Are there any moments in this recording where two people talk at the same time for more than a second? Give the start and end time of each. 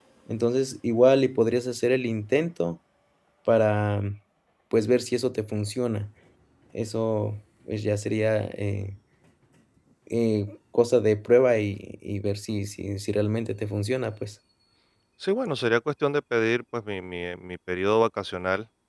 none

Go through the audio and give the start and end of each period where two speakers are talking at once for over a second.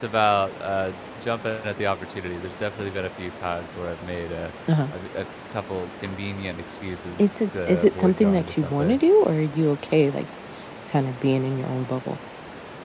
7.2-9.0

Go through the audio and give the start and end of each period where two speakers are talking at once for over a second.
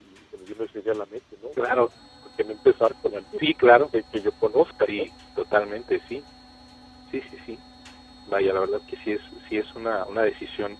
none

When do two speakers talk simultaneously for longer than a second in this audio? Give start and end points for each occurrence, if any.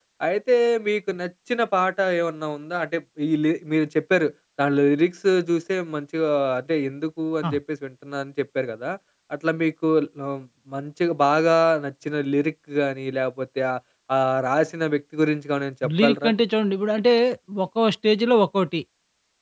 none

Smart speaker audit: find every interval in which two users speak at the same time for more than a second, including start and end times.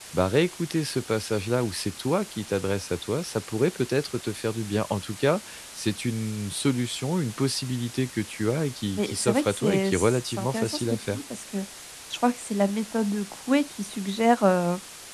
9.0-11.2

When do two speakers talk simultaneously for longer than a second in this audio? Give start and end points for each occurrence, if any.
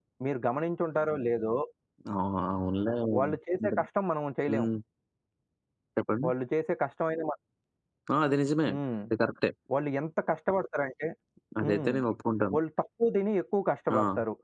none

